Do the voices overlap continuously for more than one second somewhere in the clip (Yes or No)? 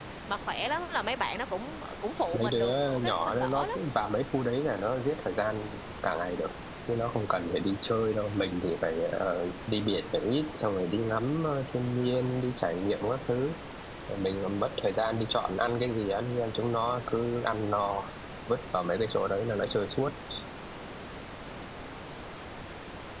Yes